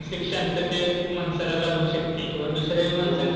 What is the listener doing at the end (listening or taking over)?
listening